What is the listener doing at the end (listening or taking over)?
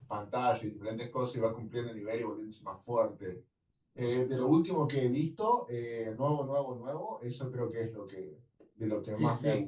taking over